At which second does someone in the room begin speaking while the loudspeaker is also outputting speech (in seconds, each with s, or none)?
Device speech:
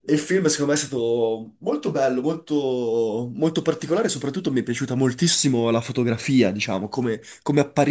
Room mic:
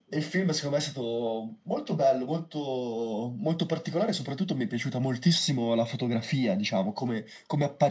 none